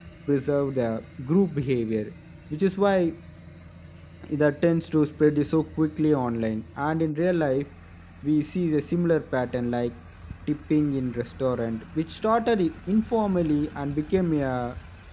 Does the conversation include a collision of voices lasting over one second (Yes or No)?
No